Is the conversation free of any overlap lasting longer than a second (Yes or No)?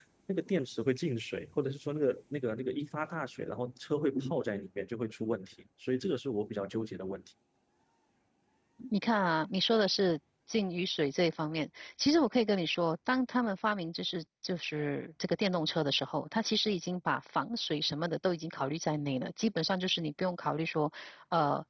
Yes